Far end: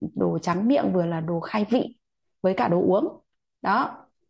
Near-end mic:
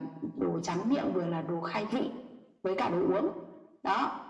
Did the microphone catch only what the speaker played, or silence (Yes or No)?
Yes